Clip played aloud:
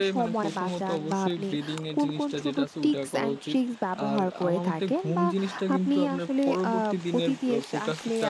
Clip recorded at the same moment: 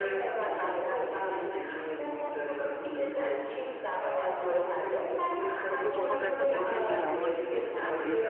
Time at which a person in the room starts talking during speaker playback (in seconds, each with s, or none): 5.8 s